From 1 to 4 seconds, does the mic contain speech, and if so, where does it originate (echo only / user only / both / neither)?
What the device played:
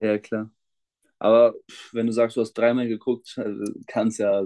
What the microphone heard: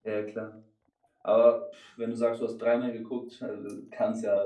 echo only